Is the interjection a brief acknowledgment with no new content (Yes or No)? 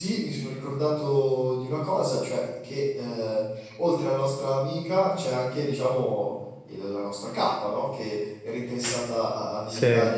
Yes